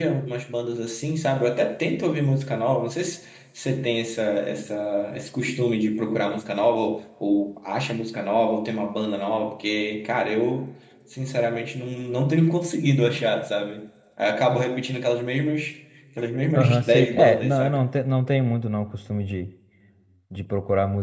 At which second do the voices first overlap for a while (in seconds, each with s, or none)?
16.5 s